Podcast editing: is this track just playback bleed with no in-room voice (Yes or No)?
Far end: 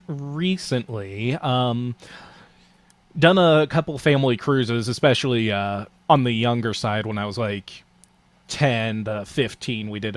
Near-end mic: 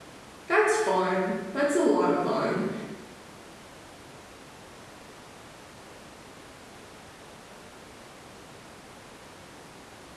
No